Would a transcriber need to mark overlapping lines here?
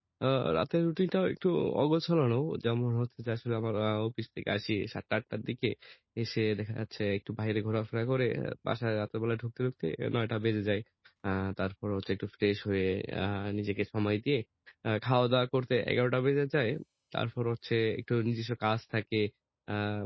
No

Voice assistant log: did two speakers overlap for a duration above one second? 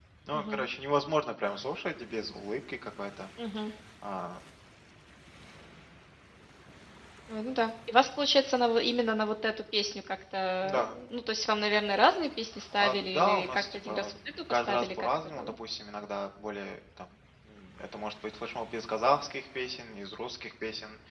Yes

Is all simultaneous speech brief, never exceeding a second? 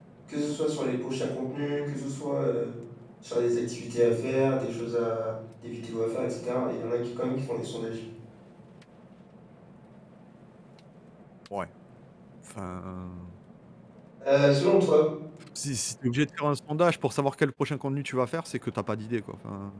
Yes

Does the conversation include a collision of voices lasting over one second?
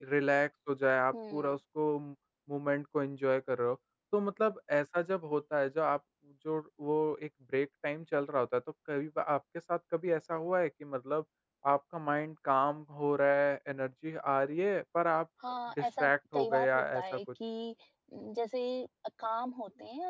Yes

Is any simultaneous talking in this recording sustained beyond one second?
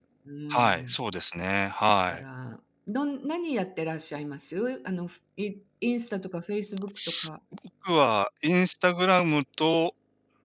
No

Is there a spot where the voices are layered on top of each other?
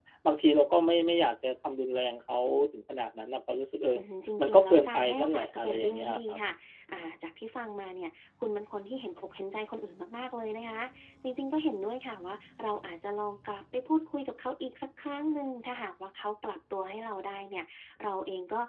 Yes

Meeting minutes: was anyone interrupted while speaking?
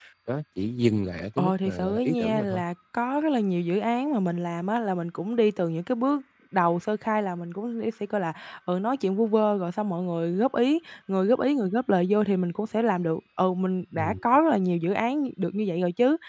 Yes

